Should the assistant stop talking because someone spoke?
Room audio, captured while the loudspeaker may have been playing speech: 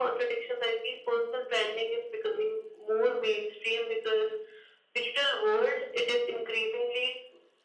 No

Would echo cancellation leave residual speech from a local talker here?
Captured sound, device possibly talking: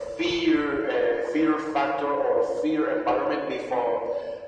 No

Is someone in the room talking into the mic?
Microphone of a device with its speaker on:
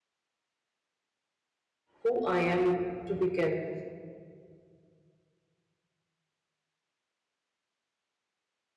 Yes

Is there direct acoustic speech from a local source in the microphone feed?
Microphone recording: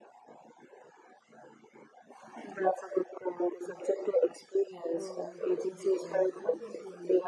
Yes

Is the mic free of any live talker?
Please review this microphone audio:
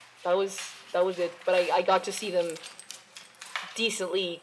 Yes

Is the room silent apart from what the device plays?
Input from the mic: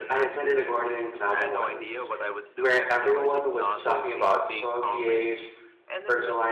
No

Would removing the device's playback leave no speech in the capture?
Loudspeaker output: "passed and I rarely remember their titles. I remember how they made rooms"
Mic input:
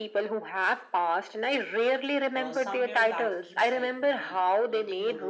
No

